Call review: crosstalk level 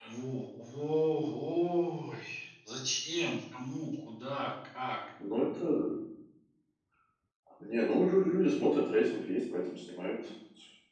none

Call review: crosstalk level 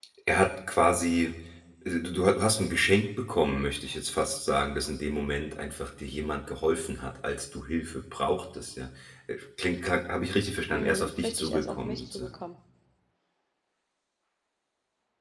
present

